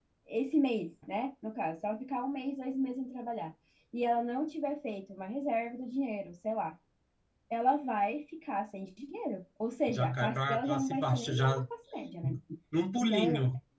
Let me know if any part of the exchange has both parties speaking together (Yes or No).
Yes